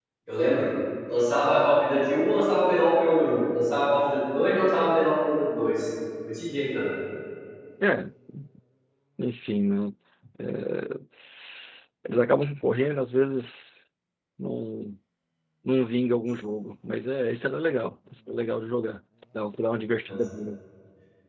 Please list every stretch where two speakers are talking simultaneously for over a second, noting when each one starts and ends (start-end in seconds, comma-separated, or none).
none